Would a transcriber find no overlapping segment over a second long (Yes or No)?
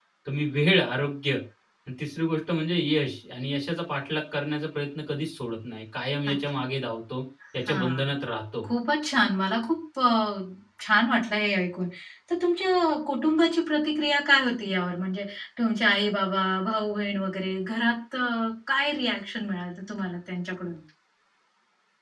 Yes